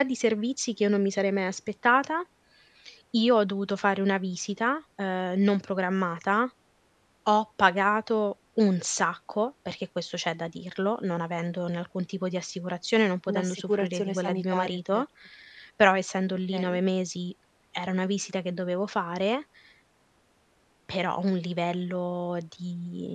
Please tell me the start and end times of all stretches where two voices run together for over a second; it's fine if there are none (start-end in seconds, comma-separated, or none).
13.3-15.0